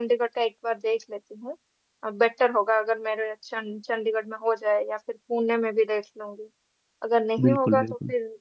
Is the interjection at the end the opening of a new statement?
No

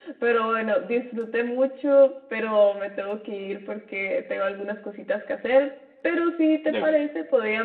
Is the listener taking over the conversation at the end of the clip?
No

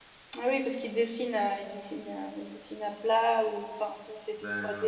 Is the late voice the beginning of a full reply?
Yes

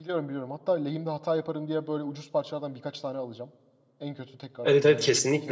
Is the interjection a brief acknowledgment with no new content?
No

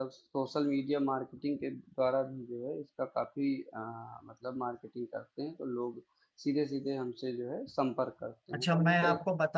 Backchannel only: No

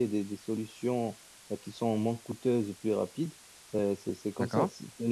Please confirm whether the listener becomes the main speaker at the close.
No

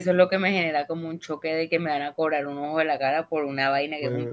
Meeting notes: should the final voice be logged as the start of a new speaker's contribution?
Yes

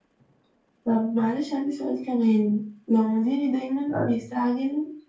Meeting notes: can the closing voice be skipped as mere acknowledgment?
Yes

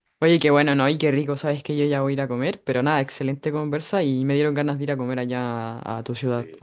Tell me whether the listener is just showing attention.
Yes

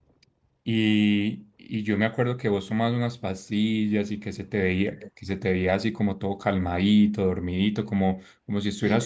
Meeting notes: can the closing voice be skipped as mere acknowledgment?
Yes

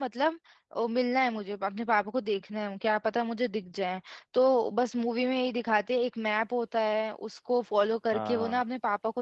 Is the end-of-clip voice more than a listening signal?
No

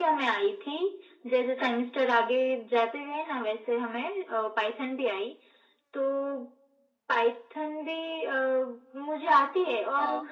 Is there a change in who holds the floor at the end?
No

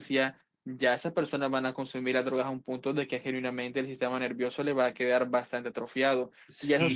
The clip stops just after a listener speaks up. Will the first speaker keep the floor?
No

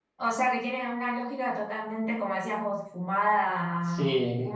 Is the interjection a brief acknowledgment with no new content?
Yes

